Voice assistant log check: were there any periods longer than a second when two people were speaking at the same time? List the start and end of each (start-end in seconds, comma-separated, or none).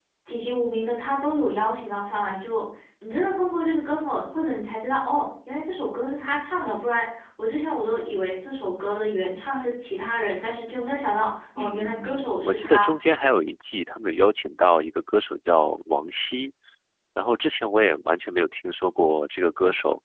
11.6-12.9